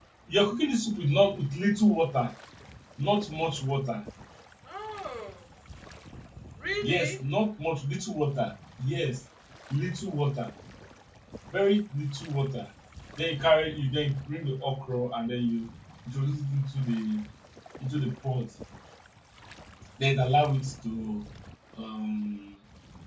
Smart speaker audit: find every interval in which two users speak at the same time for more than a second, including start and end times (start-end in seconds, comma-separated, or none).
none